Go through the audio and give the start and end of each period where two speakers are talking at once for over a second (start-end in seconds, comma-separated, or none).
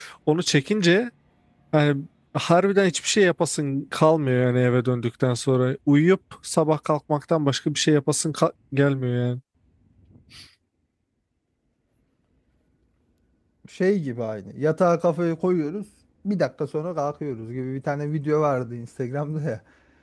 none